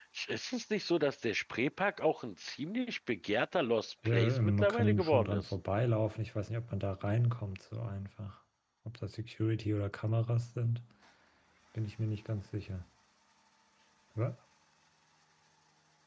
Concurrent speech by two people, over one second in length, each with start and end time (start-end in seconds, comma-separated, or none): 4.0-5.5